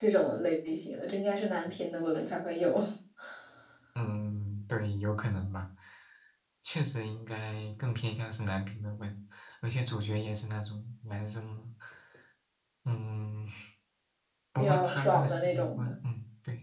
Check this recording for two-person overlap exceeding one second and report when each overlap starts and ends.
14.6-15.9

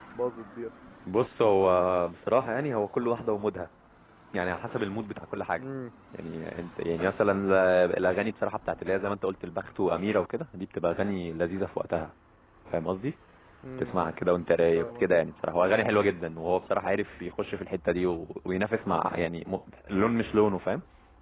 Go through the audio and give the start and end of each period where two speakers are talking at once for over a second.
none

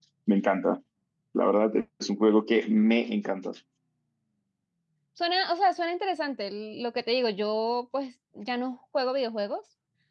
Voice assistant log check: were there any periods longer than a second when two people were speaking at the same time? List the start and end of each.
none

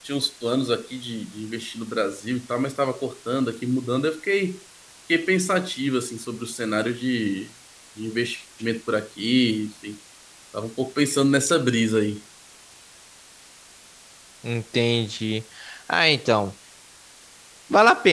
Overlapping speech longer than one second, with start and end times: none

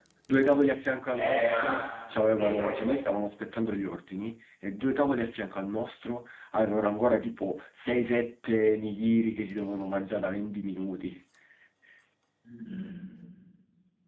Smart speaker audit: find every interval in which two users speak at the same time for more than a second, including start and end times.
none

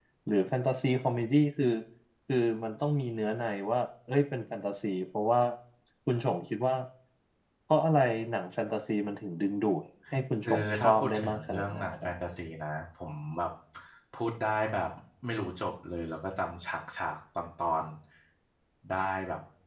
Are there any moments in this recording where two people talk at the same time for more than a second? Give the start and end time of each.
10.4-11.8

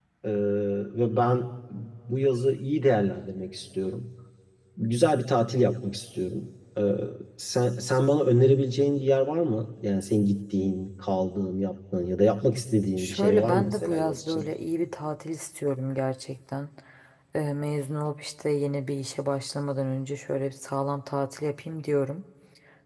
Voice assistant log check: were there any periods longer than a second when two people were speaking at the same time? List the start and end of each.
13.0-14.5

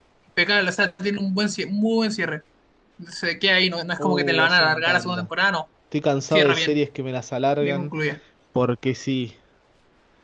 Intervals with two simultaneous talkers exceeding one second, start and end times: 4.0-5.3

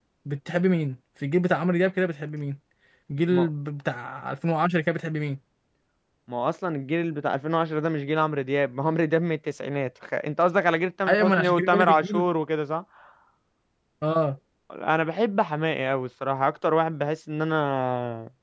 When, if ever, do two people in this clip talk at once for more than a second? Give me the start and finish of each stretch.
11.1-12.3

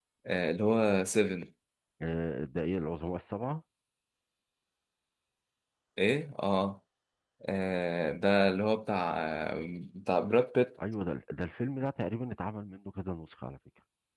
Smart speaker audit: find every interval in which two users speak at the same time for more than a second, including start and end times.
none

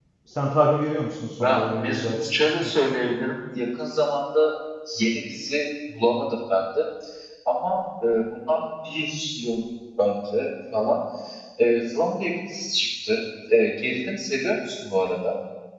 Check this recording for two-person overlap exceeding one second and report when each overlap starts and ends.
1.4-2.7

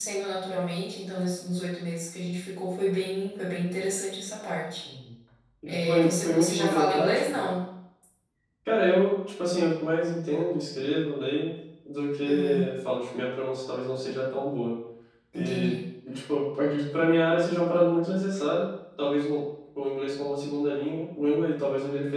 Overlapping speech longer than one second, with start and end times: 5.8-7.4

